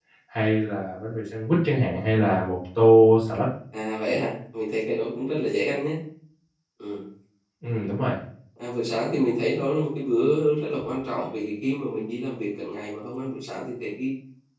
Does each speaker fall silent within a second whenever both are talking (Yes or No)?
Yes